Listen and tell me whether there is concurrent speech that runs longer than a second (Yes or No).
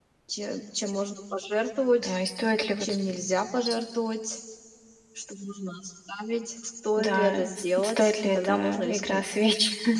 Yes